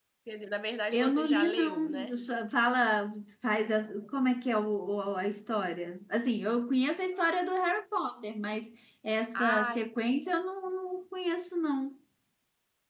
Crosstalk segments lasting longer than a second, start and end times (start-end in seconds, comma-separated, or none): 0.9-2.1